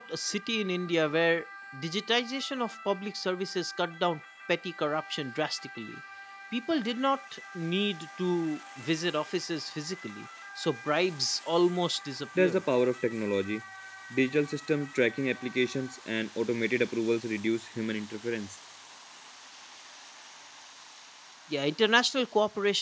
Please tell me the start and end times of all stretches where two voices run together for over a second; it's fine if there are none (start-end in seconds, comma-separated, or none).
none